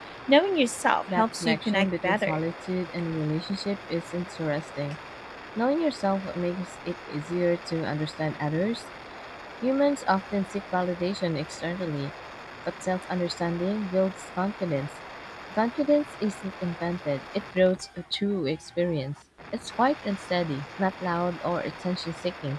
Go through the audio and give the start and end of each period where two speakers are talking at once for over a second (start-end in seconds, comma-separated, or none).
1.2-2.4